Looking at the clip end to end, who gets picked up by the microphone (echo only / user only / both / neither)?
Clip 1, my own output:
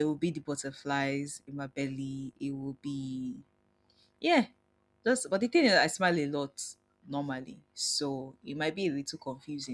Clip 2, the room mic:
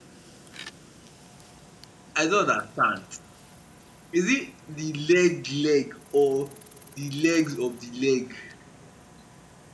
user only